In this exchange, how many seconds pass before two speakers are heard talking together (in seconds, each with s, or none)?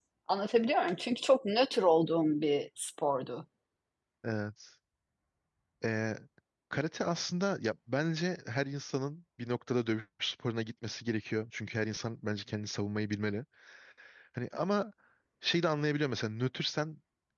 none